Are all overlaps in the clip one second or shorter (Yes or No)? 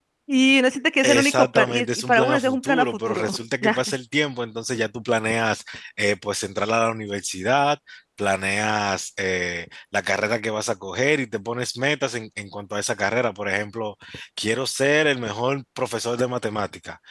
No